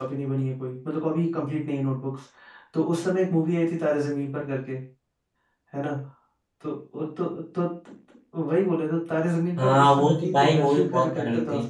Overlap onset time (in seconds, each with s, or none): 9.6 s